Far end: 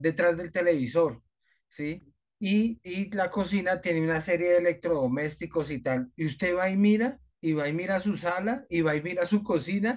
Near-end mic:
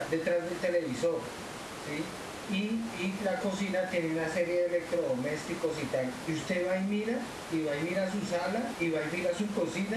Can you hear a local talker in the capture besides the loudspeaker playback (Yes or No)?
No